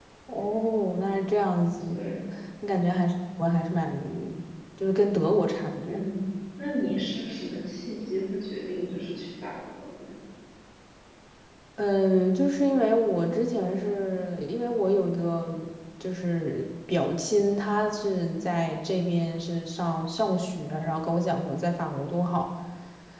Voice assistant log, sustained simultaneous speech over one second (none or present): none